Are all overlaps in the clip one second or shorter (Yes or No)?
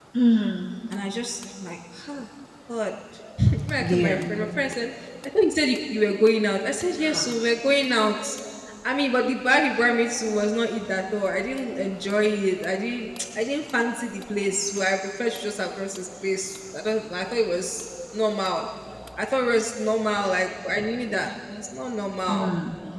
Yes